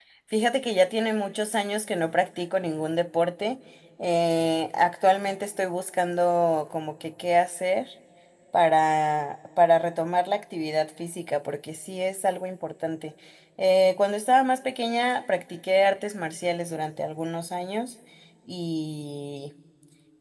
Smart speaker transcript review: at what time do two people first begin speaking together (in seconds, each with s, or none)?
none